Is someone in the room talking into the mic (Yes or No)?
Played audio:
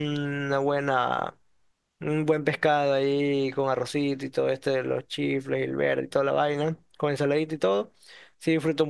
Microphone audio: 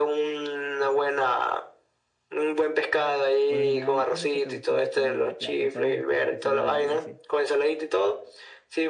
Yes